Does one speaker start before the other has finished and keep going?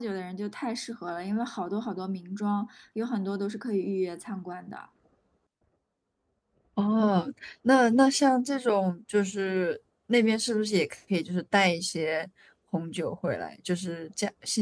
No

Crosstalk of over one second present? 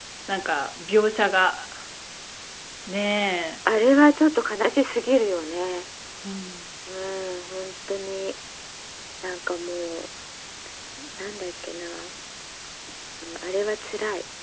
No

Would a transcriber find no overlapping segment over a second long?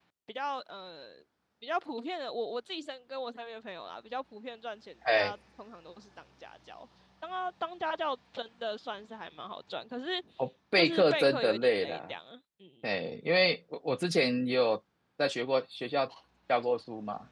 No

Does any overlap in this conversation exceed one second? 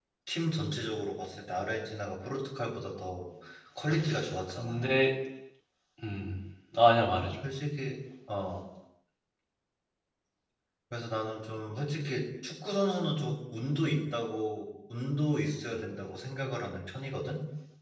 No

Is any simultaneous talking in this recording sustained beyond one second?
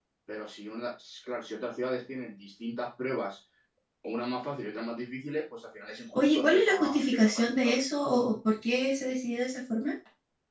Yes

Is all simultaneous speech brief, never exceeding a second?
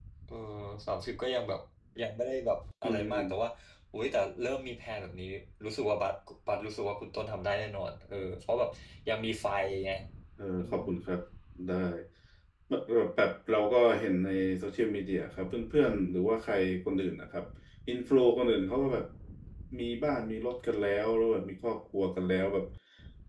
Yes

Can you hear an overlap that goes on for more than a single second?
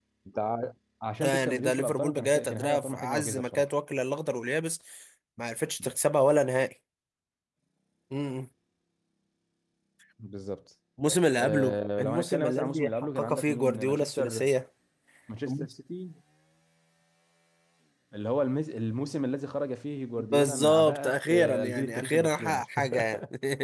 Yes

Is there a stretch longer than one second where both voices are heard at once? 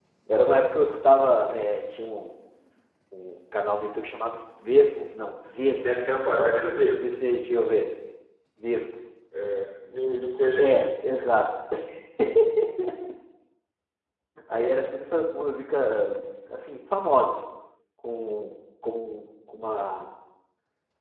No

